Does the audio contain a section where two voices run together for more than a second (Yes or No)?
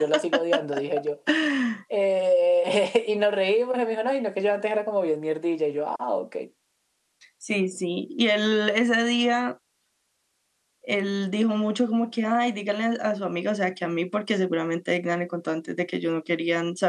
No